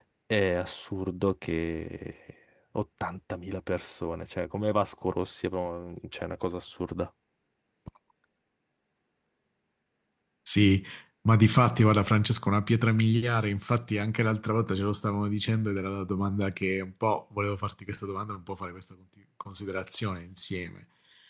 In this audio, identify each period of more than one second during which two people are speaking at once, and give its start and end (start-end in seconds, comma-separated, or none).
none